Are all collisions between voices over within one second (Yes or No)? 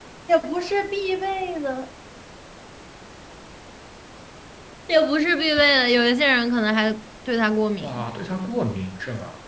Yes